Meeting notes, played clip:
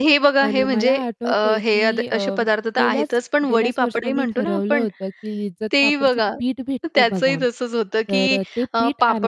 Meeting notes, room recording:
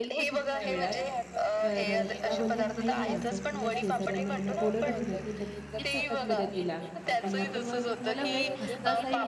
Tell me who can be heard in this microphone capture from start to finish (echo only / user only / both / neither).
both